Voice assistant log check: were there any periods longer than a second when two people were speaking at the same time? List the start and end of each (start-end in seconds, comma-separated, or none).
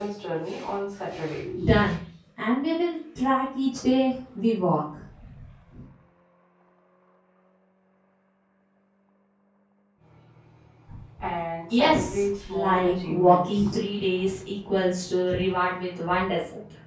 11.7-13.7